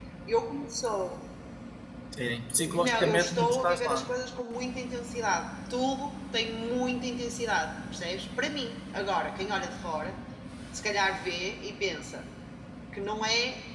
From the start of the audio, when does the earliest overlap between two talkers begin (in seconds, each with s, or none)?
2.8 s